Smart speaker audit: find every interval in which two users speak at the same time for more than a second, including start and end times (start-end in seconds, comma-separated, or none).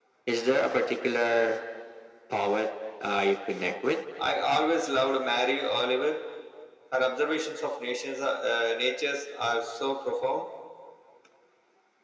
none